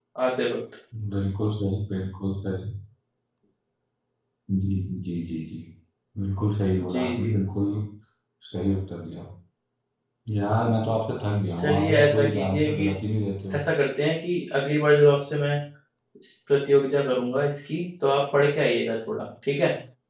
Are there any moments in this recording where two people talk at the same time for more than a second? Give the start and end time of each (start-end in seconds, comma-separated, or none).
11.6-12.9